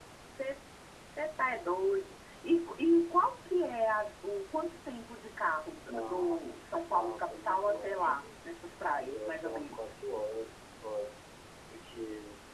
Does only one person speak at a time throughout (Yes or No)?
No